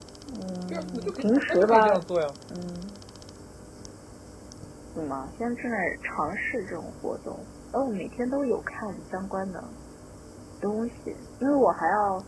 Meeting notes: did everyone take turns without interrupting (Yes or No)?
No